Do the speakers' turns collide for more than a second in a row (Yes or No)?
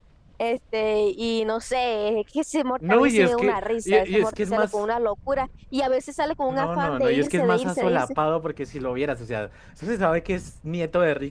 Yes